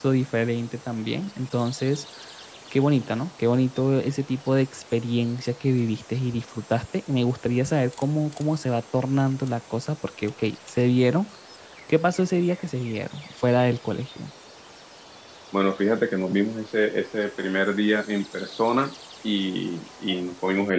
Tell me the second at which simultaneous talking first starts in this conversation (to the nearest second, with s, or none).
none